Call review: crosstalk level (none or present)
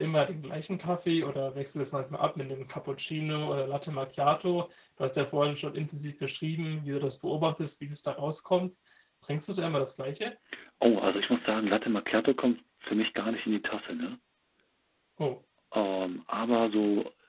none